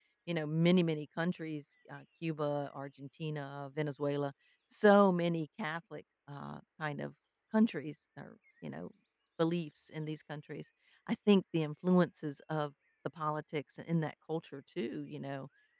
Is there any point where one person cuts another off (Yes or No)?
No